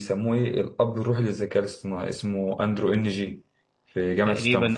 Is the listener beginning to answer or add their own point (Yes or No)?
Yes